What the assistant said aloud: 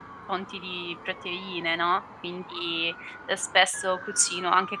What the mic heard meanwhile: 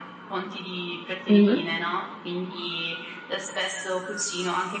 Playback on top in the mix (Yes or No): No